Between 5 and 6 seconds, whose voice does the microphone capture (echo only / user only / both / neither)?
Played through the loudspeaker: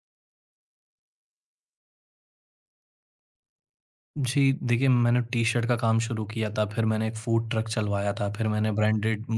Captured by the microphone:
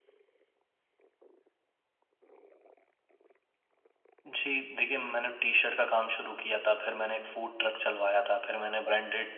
echo only